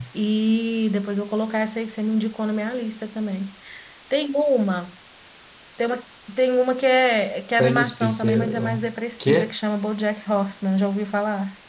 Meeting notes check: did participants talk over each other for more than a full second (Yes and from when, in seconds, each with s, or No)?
Yes, from 7.6 s